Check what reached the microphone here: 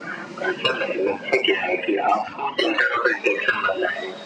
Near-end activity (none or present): none